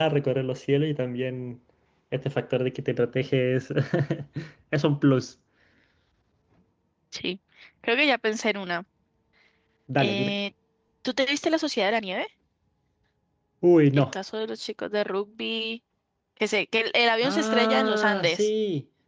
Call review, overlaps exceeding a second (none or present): present